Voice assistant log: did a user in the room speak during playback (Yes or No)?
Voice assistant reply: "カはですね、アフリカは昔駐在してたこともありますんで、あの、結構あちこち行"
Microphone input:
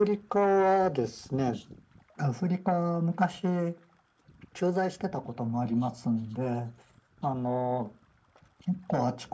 No